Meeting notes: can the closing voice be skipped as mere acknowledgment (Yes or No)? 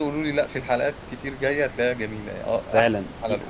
No